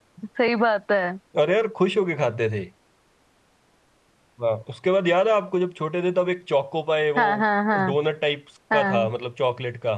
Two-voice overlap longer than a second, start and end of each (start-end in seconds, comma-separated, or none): none